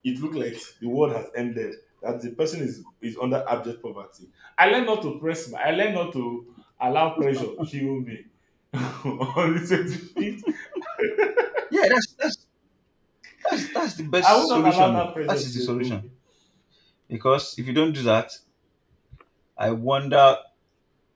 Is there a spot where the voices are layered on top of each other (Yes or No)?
Yes